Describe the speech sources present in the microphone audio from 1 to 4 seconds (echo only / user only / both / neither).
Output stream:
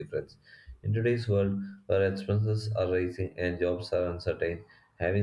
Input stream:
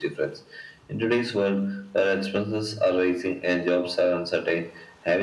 echo only